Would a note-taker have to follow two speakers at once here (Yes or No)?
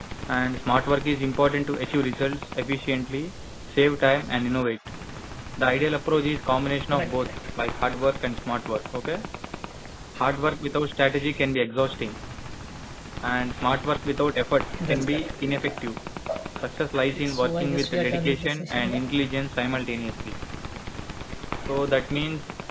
Yes